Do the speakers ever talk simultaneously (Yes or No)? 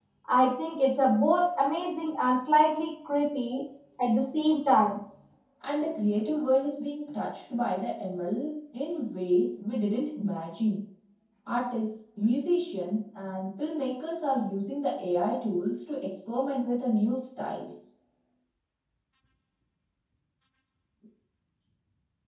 No